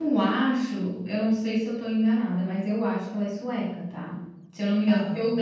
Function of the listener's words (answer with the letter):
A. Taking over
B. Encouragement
B